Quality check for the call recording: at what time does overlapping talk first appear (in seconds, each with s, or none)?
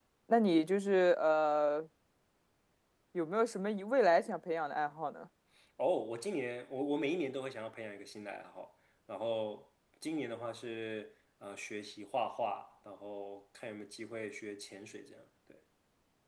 none